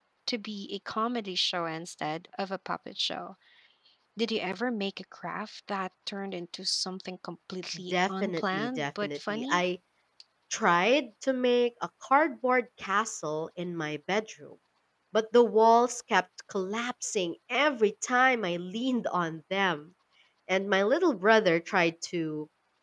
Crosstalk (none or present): present